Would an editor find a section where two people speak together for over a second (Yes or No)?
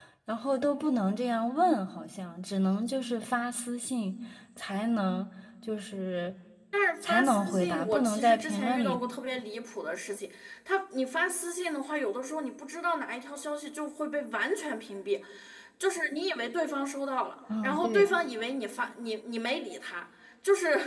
Yes